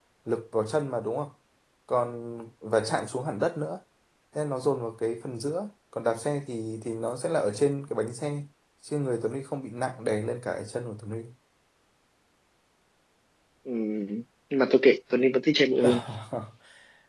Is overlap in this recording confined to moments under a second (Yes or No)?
Yes